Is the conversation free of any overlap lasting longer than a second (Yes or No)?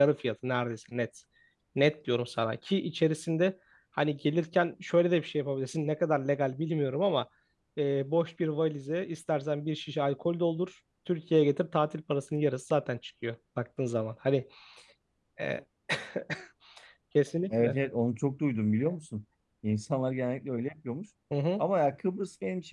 Yes